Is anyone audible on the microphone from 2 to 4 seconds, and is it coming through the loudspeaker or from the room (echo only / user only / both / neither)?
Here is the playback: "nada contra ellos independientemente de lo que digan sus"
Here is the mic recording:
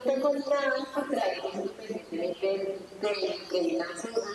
echo only